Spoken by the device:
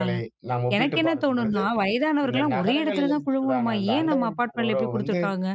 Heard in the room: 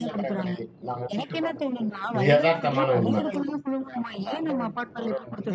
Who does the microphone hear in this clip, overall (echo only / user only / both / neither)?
both